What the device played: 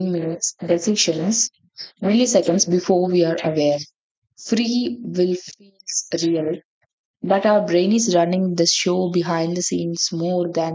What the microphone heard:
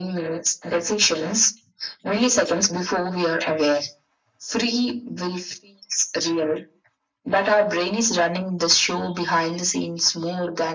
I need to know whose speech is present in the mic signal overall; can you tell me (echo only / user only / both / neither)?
echo only